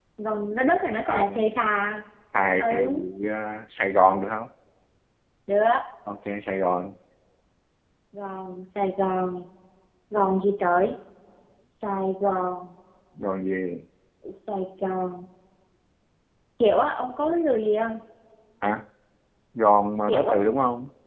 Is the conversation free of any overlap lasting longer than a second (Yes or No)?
Yes